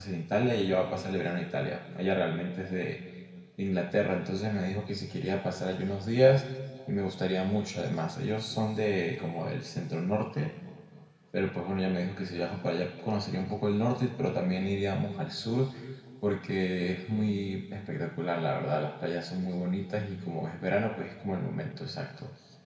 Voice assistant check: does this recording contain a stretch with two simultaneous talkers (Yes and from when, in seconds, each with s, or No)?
No